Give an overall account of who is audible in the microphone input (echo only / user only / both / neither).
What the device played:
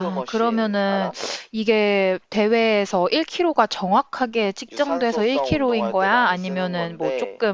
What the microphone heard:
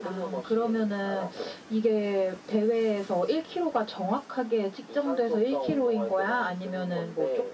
echo only